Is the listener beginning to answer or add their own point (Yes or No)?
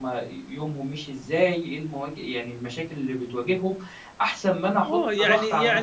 Yes